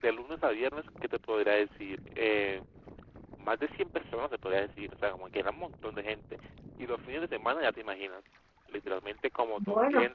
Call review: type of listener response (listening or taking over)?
listening